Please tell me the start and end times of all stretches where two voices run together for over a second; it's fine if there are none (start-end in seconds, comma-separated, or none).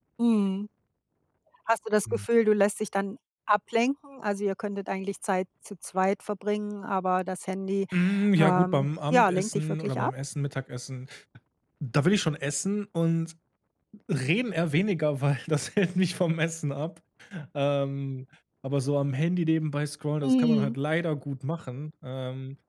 8.4-10.1